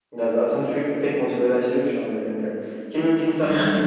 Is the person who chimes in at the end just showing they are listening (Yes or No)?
Yes